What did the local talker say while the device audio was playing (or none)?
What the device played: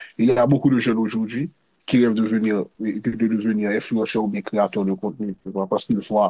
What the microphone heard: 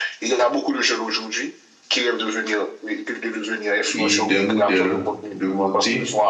et des modèles de beauté